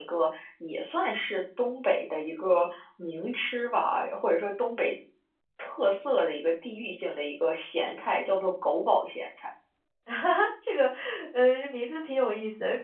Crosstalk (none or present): none